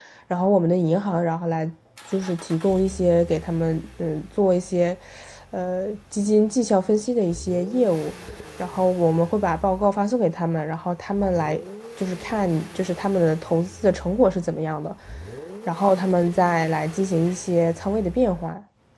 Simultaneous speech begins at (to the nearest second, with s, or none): none